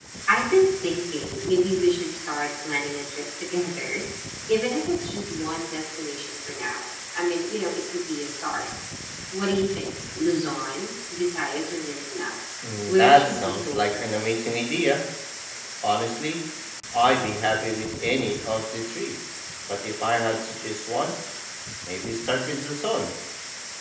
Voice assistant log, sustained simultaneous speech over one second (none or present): present